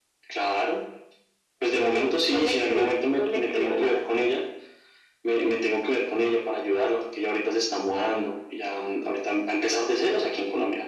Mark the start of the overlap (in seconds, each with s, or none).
1.7 s